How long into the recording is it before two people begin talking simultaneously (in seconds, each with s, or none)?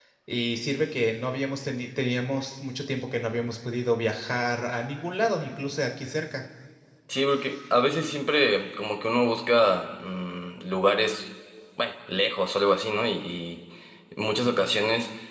none